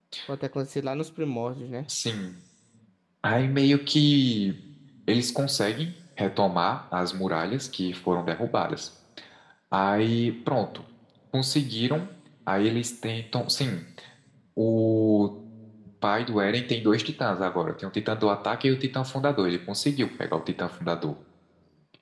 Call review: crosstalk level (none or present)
none